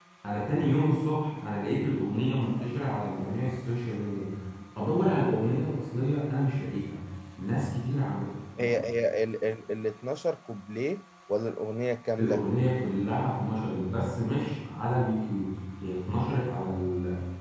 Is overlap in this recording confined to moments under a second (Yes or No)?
Yes